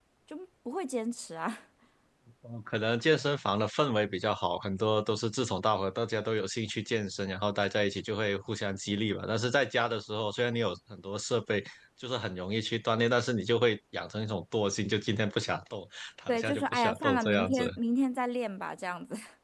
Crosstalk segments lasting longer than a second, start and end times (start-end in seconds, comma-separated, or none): 16.3-17.6